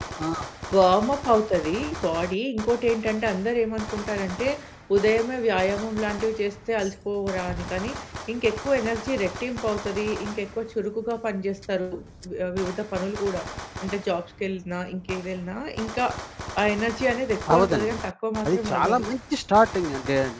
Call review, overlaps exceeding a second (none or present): none